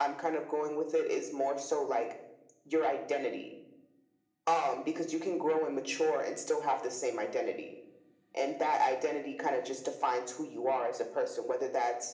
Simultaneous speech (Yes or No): No